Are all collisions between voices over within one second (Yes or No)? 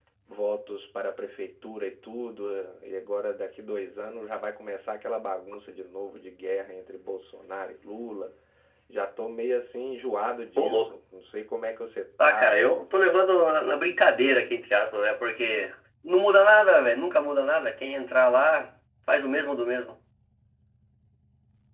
Yes